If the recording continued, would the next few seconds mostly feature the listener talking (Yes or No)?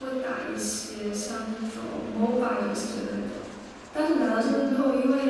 No